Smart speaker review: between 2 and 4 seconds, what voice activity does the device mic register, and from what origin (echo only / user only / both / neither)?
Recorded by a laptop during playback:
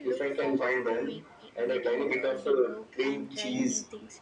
both